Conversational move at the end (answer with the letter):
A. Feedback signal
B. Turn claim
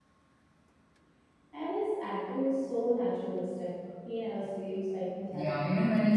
B